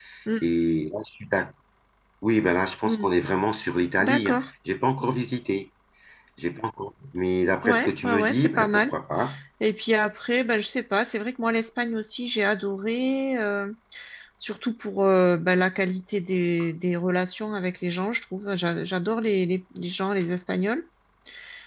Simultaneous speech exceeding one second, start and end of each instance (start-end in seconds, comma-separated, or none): 7.6-8.9